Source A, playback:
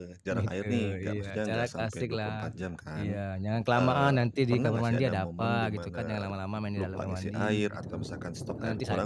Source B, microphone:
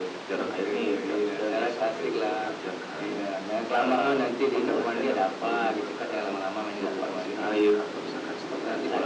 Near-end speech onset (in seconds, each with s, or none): none